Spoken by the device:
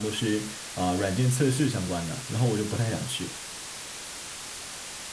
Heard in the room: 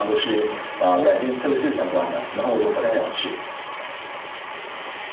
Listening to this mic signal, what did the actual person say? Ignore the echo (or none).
明白，